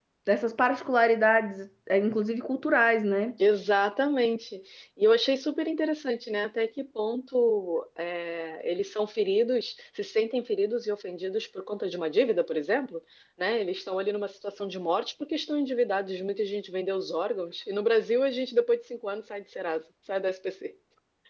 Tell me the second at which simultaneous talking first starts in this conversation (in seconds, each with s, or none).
none